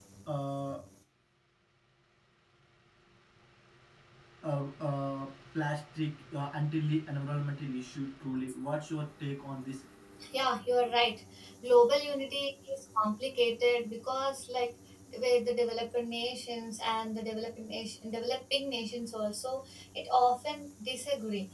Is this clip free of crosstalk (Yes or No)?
Yes